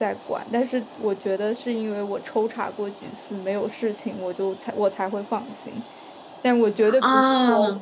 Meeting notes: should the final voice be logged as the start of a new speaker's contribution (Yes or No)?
No